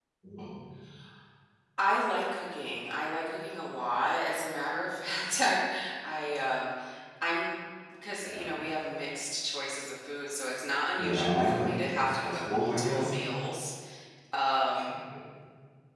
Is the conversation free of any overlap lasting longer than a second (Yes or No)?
No